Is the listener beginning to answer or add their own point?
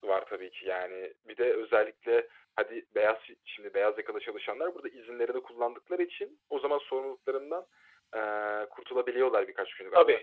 No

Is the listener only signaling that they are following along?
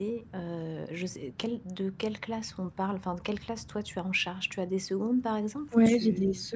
No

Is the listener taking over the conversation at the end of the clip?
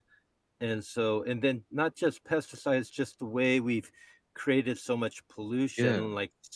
No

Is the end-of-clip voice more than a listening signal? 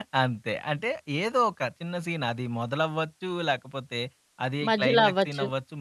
No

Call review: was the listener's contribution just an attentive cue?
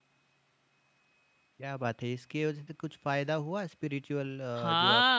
No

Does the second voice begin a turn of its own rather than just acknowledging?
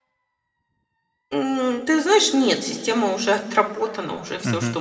No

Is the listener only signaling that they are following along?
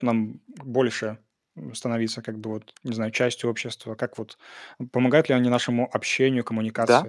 No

